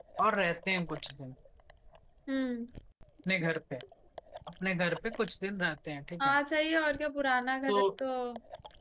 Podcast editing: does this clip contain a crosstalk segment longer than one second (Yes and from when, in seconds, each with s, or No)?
No